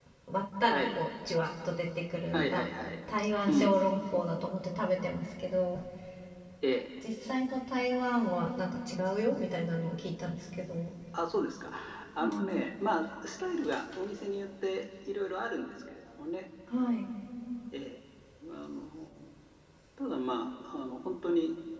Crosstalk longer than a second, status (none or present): none